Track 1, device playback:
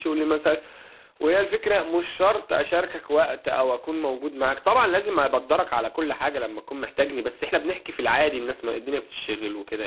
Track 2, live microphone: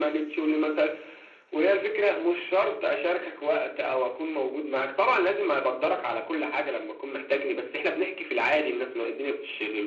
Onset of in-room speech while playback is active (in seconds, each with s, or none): none